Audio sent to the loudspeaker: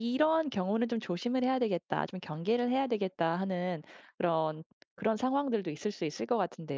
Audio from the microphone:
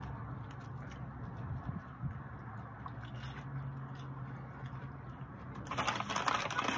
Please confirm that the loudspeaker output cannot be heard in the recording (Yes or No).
Yes